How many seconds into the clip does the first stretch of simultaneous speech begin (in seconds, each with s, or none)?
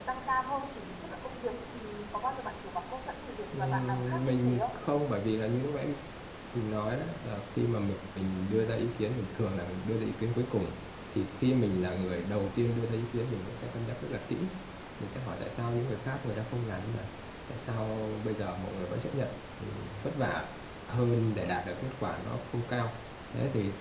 3.5 s